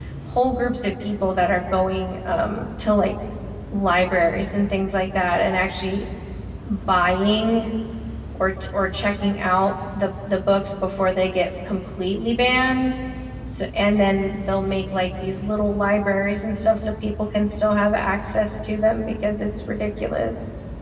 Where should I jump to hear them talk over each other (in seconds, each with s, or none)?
none